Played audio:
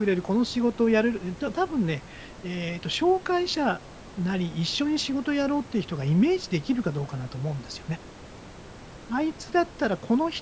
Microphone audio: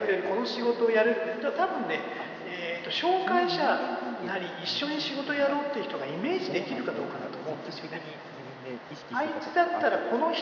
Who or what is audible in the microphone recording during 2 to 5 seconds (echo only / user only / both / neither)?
both